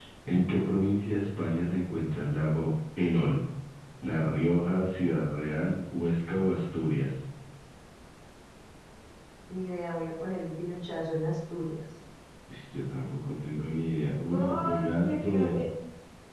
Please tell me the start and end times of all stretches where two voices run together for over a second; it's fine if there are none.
14.3-15.6

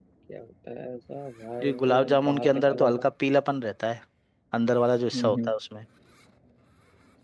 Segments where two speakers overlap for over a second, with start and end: 1.6-2.9

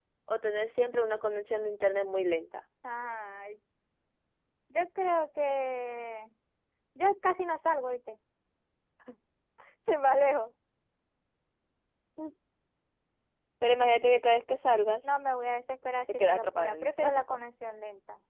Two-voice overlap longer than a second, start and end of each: 16.1-17.4

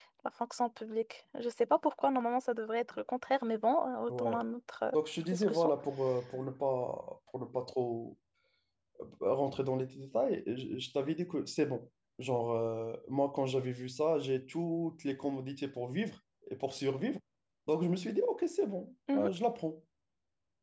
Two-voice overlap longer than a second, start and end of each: none

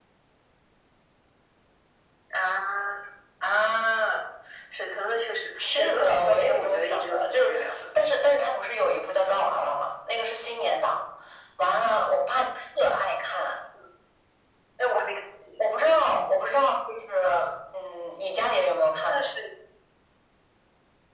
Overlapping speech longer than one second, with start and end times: 5.6-7.9

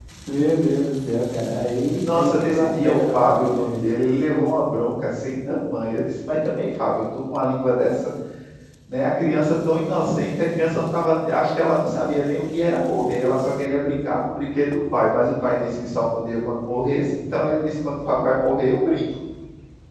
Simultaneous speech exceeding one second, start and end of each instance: 2.0-3.8

